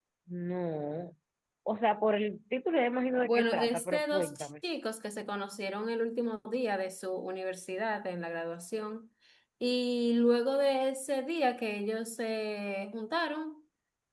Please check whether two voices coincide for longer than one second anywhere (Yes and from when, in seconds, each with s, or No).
Yes, from 3.2 s